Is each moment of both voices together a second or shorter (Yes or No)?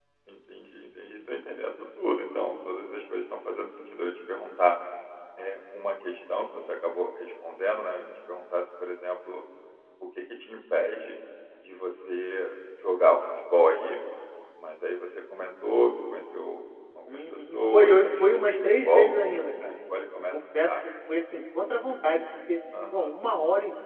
No